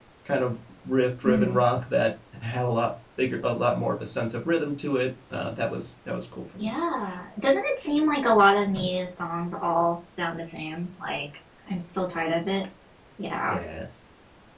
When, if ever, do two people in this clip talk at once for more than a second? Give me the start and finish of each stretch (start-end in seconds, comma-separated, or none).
none